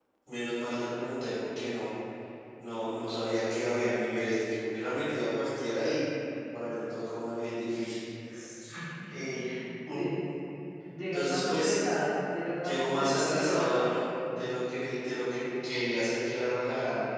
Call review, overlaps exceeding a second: present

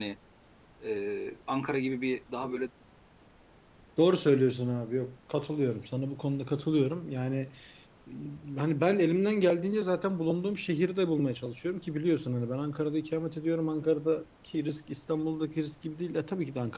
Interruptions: none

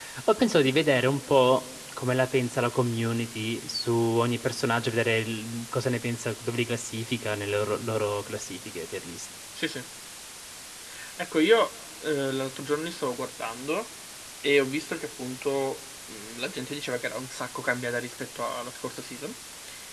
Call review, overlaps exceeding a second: none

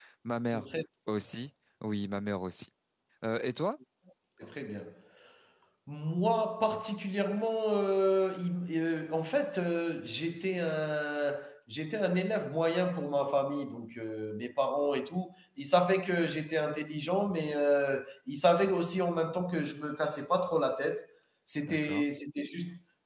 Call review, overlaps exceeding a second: none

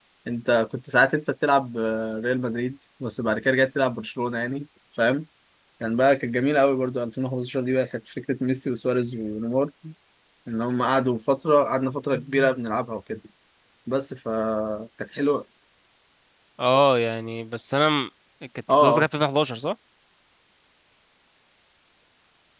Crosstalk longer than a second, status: none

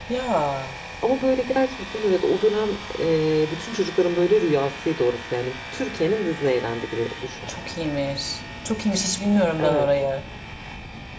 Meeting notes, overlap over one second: none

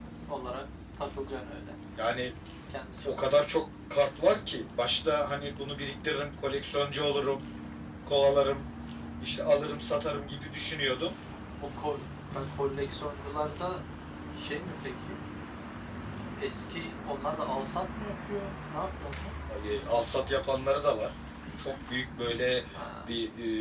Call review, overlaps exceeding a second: none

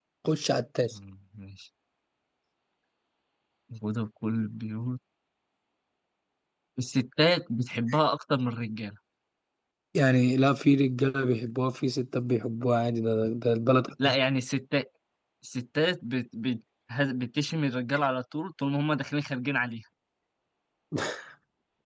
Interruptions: none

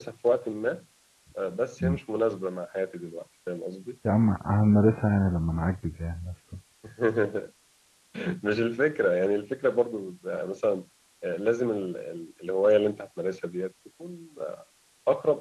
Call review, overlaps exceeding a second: none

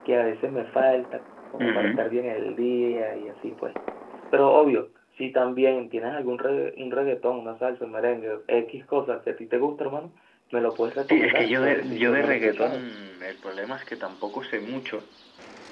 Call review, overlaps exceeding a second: present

